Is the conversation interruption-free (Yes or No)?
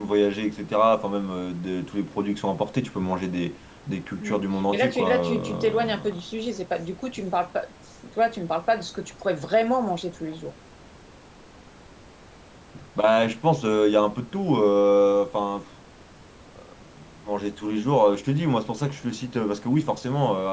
No